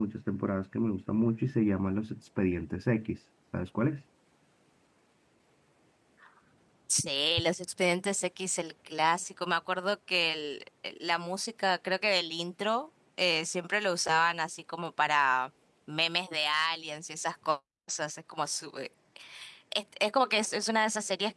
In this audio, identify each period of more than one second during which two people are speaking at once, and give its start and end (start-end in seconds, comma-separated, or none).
none